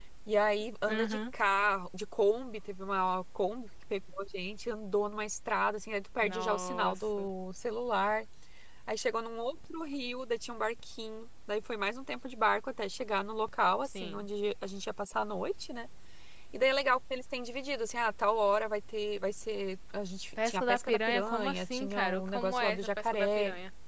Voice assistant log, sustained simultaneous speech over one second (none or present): present